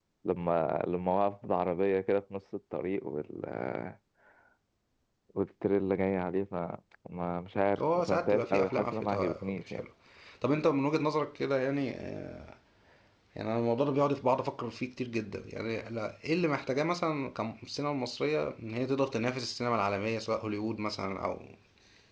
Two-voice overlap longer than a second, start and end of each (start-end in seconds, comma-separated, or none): 7.8-9.8